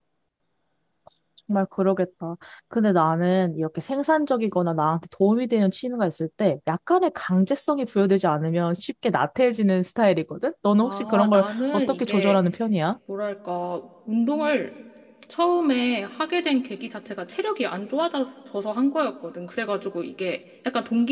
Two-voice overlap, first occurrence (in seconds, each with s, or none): 10.8 s